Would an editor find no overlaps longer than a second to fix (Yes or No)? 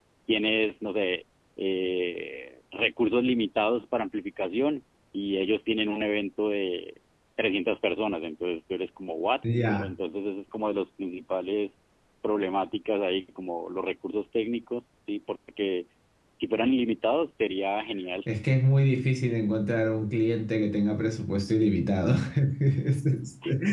Yes